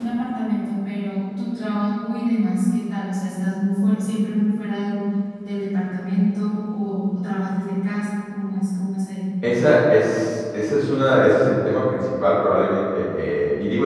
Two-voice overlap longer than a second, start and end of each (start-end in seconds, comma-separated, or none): none